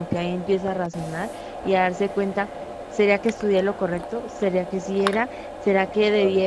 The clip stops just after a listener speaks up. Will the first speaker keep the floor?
Yes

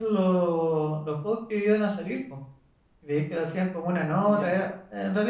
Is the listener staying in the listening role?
Yes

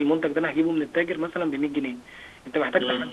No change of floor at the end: Yes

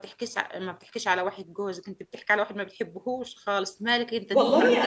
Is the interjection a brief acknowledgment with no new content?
No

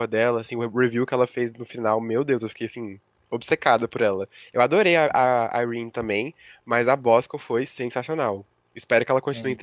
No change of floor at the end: Yes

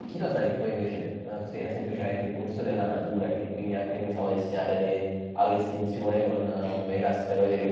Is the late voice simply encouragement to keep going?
Yes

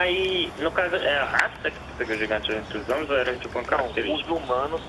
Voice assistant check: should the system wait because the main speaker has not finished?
No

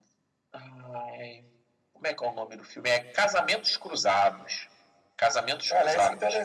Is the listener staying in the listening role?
No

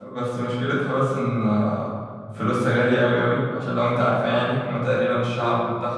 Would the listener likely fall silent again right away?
Yes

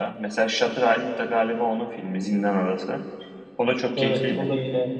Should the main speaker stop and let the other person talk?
Yes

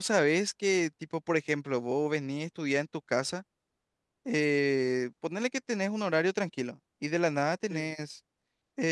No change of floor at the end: Yes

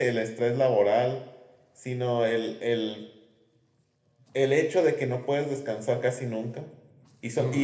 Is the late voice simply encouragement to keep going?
Yes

